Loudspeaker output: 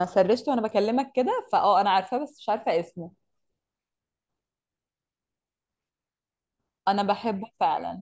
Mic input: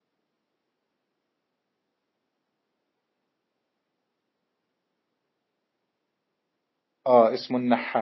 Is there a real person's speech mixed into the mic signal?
Yes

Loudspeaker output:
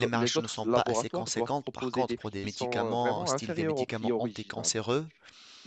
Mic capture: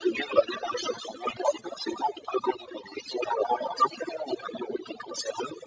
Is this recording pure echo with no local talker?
Yes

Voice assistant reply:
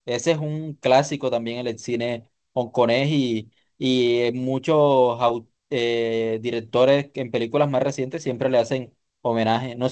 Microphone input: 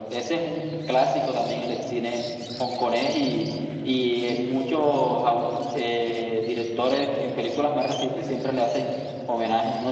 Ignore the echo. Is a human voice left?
No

